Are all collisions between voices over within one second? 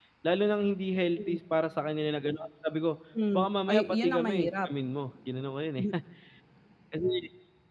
No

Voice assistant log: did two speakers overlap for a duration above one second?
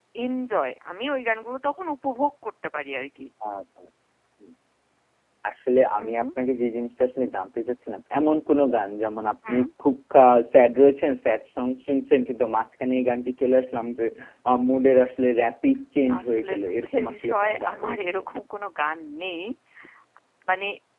Yes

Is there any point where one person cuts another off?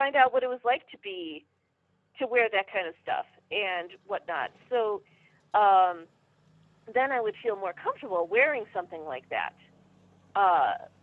No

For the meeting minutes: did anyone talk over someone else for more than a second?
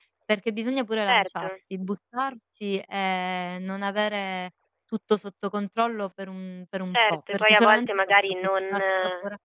Yes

